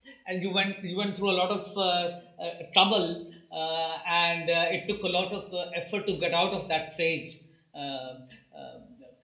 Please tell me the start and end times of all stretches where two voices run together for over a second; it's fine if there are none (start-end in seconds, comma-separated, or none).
none